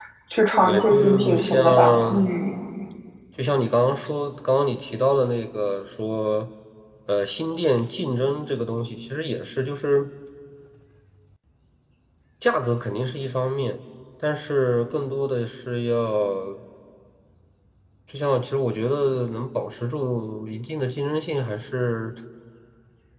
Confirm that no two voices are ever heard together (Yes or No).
No